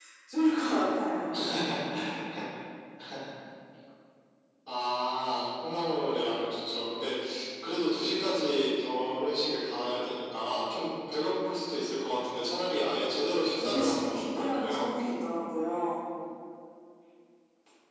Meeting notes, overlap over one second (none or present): present